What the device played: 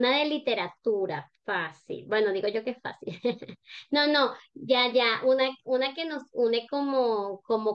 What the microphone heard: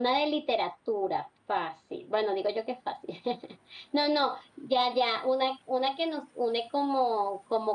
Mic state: echo only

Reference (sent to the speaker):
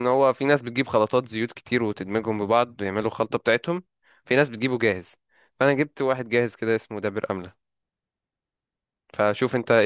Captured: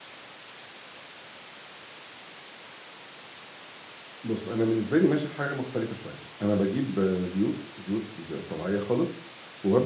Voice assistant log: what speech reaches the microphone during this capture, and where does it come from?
user only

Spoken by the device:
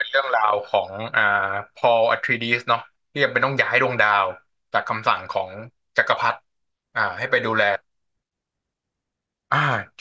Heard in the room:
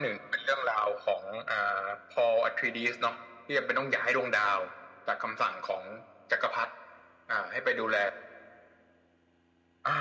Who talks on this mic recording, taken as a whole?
echo only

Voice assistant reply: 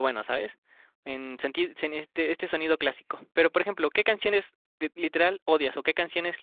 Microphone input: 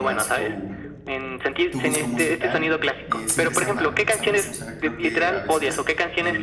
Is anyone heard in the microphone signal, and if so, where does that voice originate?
both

